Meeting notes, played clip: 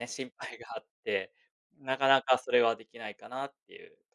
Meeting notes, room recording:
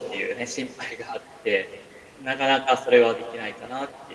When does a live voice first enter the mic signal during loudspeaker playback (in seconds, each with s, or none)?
none